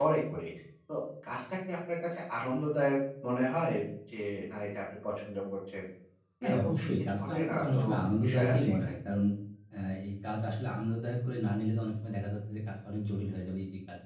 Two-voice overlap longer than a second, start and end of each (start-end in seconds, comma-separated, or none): 6.5-8.7